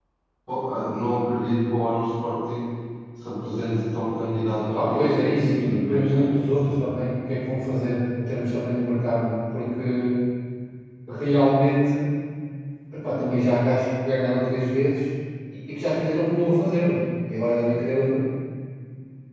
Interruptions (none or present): present